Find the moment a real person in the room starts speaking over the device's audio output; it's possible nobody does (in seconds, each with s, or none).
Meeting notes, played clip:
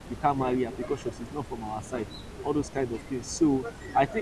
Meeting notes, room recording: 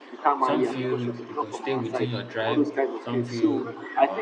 0.4 s